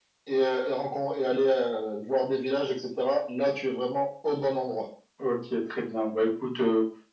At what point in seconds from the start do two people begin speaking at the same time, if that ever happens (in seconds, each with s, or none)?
none